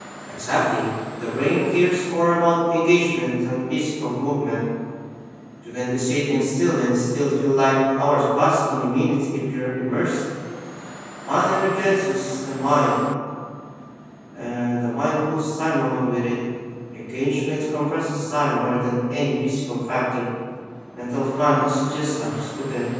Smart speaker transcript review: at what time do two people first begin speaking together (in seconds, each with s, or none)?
none